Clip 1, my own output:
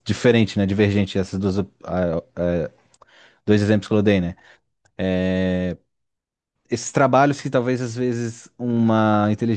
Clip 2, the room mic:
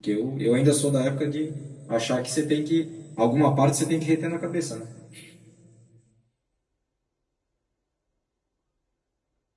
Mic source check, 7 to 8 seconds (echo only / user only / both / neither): neither